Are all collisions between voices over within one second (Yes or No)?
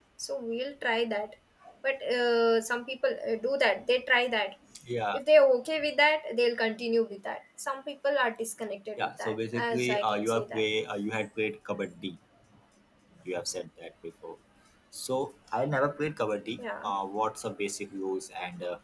No